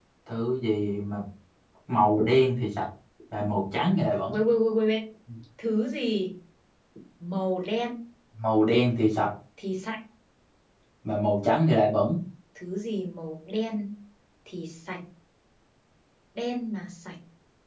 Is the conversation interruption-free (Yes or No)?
Yes